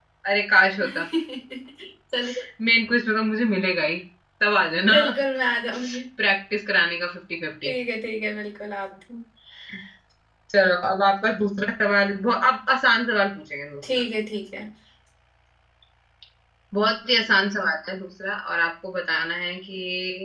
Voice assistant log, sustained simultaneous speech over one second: none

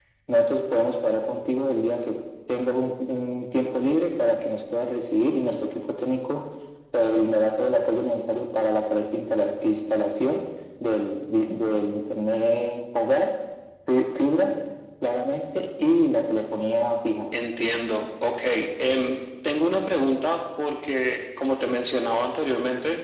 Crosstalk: none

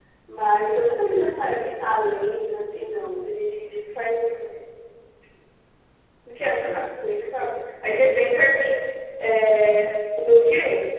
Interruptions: none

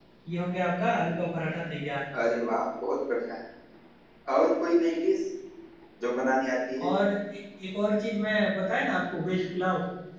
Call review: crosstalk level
none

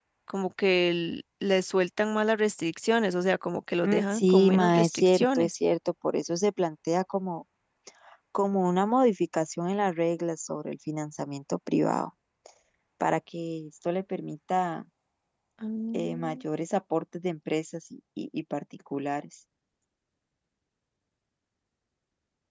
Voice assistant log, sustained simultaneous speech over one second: present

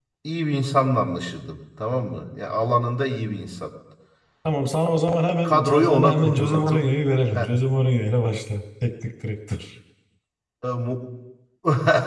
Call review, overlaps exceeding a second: present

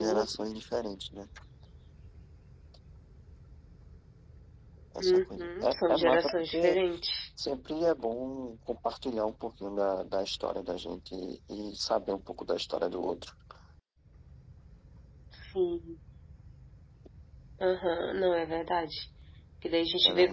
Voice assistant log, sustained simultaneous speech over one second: present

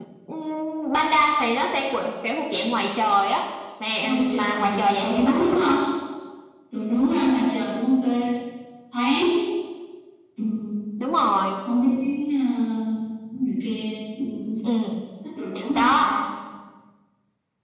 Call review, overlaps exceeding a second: present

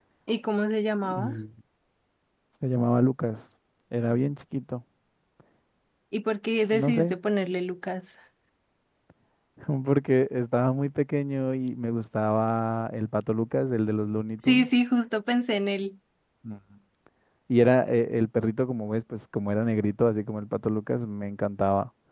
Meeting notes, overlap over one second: none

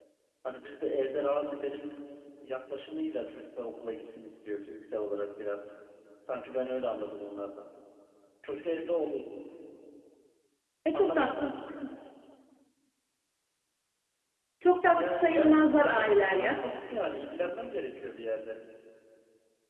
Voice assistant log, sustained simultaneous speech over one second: present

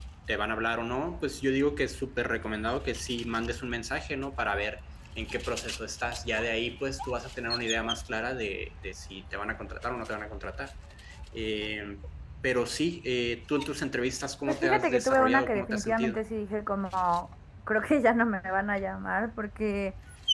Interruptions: present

